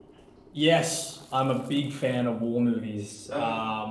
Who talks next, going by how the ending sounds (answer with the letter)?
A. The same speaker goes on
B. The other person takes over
A